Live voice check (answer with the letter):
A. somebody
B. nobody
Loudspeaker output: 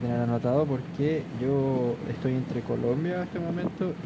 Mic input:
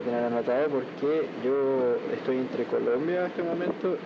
B